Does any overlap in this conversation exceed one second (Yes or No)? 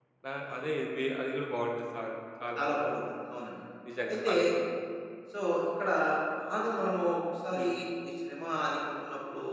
No